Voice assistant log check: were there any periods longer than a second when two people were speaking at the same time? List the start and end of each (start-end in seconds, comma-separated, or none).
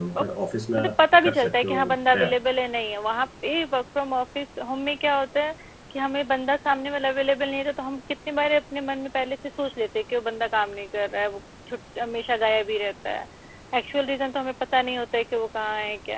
0.8-2.4